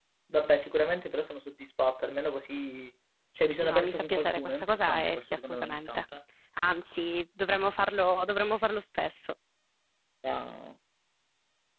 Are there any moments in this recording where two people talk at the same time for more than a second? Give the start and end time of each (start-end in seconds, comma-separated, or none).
3.6-6.0